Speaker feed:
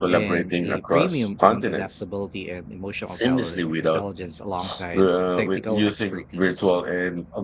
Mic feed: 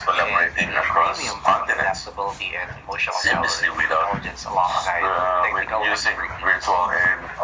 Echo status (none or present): present